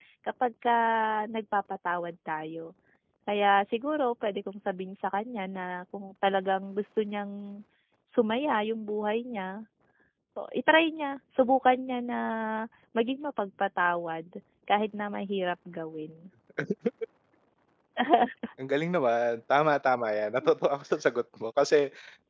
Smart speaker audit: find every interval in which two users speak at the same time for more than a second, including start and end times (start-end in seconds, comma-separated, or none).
none